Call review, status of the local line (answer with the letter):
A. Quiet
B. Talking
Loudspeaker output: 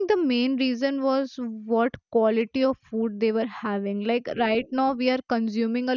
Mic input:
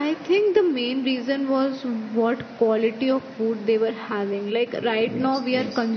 B